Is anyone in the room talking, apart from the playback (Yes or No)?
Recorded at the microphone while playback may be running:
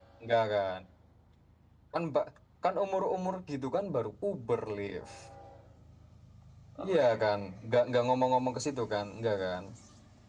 Yes